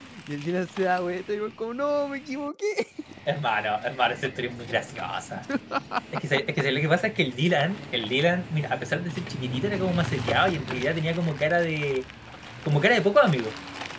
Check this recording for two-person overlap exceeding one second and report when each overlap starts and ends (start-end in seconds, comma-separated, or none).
none